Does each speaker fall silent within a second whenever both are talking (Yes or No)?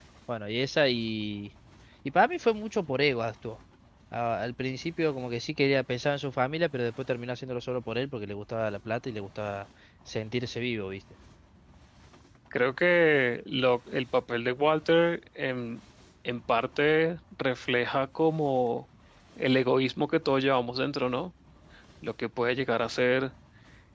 Yes